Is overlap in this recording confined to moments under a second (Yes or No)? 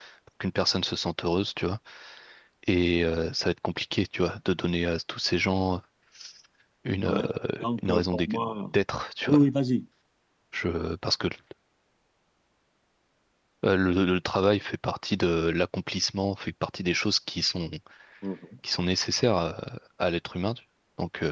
No